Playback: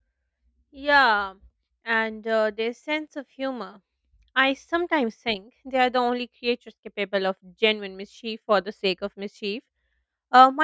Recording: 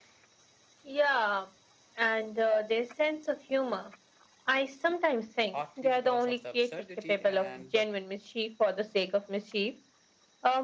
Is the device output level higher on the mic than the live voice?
Yes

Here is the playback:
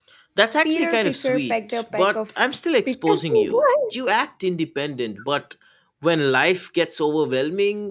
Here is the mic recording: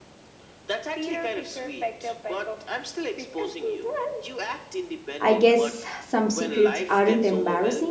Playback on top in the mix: No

